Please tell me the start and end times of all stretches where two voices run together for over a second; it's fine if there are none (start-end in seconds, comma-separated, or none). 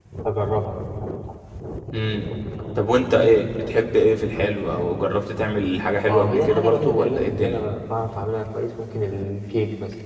6.1-7.6